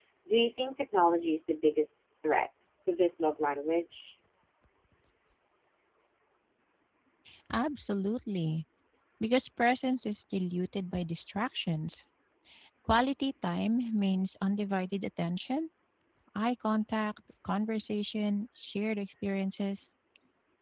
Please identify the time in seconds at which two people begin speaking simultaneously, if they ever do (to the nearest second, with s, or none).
none